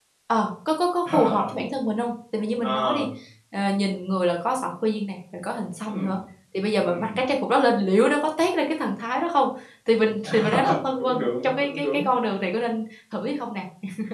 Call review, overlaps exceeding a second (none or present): present